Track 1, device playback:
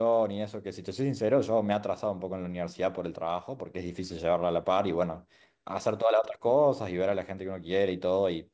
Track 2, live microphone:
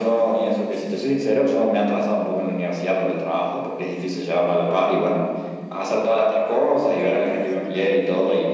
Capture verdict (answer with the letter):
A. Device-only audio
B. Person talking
B